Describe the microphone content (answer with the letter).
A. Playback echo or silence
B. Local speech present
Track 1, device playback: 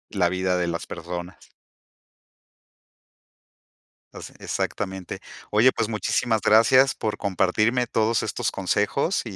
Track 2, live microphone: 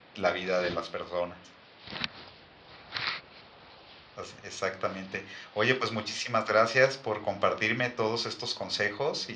A